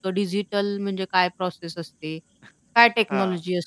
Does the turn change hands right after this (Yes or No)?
No